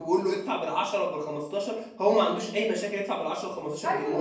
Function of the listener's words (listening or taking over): taking over